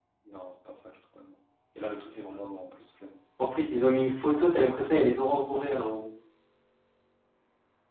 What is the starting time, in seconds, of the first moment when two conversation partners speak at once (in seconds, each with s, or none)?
none